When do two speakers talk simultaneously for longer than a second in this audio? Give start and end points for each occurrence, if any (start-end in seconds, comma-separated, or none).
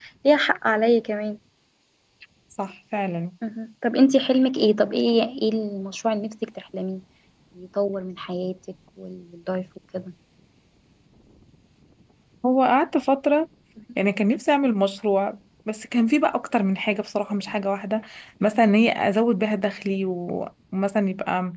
none